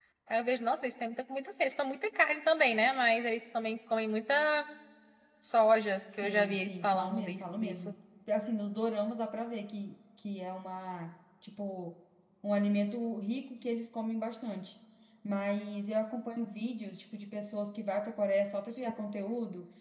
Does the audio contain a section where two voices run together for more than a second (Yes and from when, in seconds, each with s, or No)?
Yes, from 6.2 s